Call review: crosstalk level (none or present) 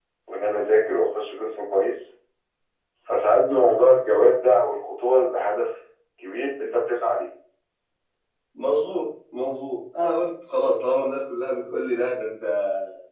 none